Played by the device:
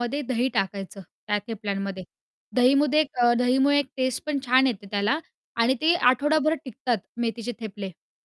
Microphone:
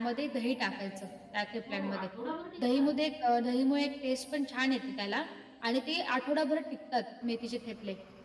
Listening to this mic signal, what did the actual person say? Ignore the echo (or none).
हो, आठवडाभर टिकतात.